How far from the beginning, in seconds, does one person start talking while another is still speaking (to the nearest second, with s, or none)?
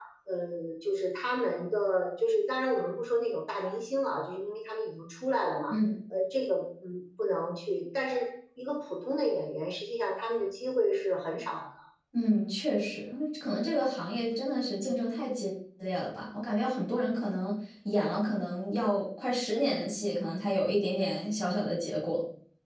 none